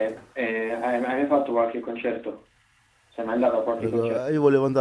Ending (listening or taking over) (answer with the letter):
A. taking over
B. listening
A